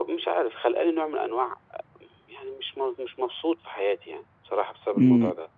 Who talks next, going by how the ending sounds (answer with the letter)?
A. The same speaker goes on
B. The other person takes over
B